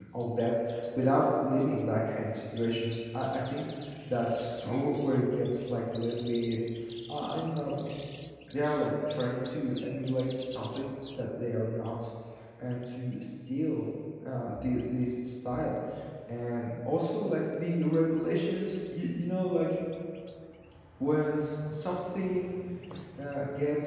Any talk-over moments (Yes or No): No